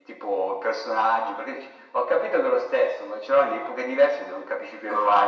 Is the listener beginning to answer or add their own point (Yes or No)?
Yes